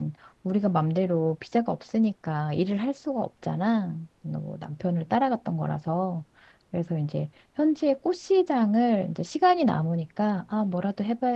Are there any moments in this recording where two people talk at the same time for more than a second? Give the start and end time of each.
none

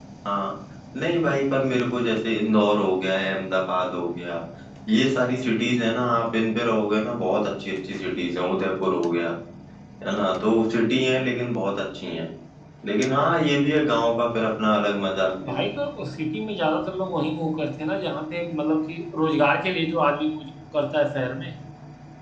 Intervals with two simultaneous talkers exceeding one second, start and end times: none

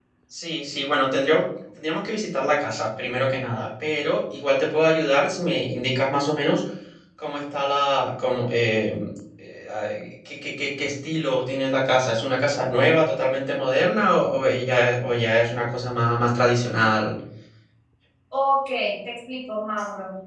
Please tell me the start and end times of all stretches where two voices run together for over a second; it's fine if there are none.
none

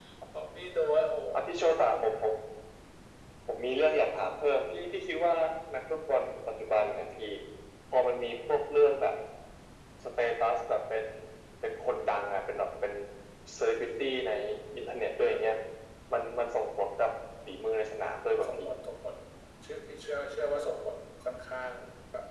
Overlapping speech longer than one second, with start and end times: none

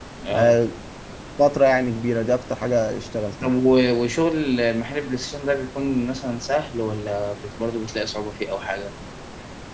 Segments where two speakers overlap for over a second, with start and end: none

